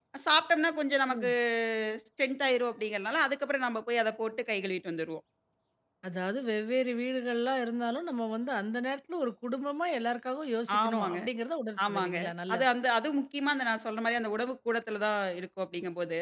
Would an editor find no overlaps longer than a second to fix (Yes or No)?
Yes